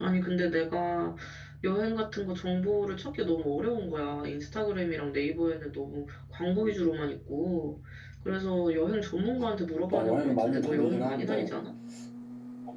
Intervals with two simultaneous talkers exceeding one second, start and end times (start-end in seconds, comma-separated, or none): 9.9-11.5